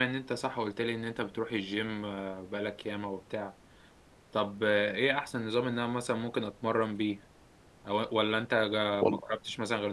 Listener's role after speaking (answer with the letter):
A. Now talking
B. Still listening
B